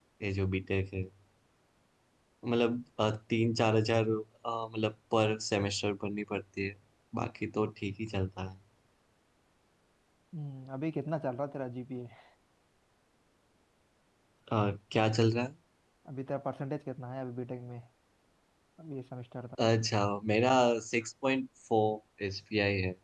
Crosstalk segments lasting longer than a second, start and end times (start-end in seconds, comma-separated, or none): none